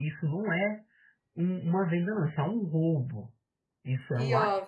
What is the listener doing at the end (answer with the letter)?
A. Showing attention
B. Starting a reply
A